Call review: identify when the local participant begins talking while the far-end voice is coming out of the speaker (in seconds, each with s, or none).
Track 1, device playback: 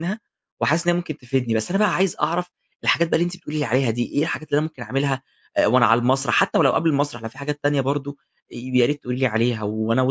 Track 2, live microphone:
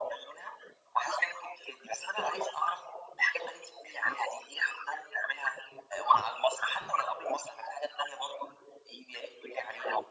none